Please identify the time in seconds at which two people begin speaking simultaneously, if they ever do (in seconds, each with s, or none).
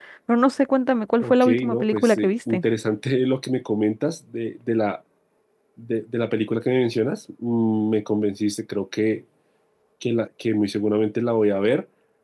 1.2 s